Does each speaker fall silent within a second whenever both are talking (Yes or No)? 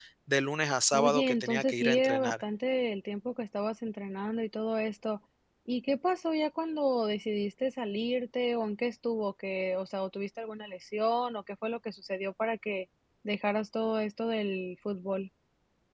No